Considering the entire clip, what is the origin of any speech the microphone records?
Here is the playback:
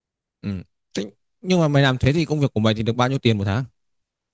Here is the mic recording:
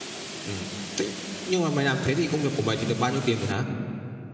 echo only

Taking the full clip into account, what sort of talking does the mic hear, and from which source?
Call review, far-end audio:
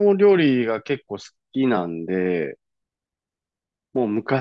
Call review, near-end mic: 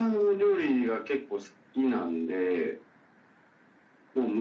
echo only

